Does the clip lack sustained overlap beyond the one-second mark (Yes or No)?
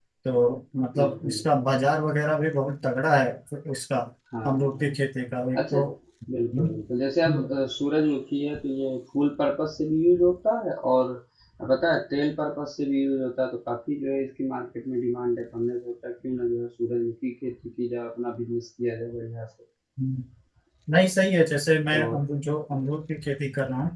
Yes